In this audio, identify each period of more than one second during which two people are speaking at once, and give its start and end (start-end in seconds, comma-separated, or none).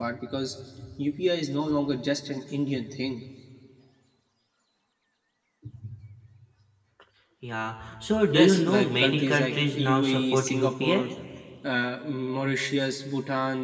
8.3-11.0